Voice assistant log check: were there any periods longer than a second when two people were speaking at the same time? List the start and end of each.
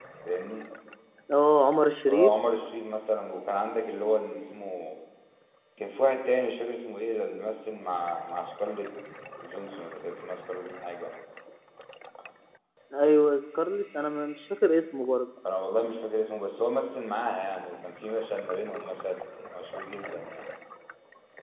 none

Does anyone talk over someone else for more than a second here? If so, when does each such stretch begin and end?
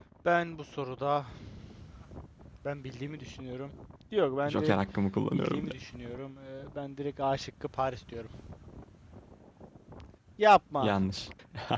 none

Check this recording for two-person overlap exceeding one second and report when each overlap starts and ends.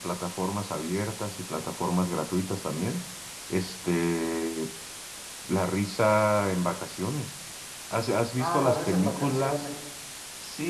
8.4-9.7

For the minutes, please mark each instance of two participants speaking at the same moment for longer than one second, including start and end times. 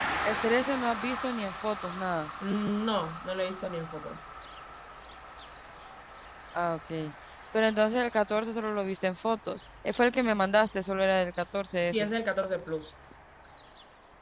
none

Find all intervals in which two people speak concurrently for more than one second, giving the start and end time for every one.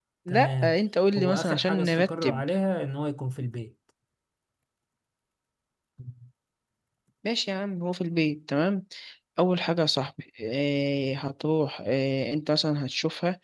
1.2-2.4

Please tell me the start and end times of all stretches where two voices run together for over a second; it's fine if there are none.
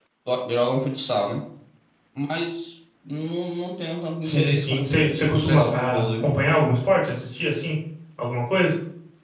4.2-6.3

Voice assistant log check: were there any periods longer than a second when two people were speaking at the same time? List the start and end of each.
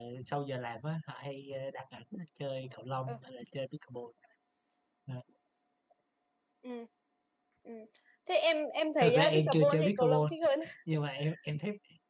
9.0-10.3

